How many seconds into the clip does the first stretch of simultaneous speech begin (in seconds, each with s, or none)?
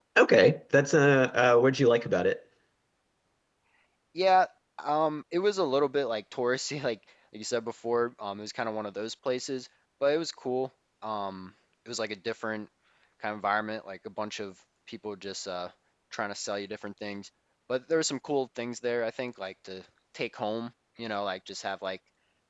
none